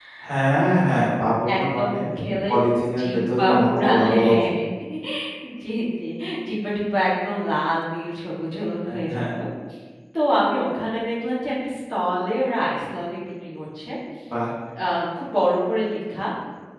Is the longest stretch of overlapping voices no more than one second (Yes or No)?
No